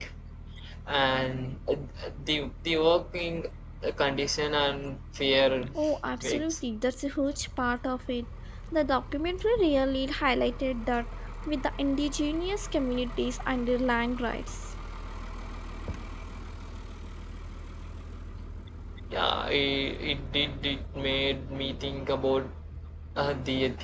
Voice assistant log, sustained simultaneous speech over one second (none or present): none